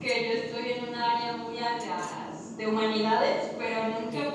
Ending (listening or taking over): listening